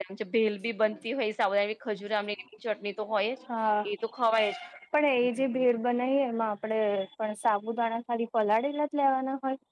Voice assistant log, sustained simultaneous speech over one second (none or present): none